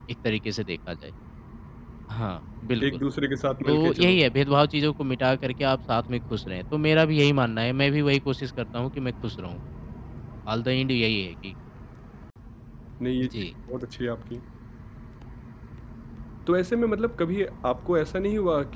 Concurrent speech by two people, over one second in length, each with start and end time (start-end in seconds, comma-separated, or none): none